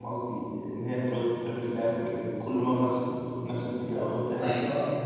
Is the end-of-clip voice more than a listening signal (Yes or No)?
Yes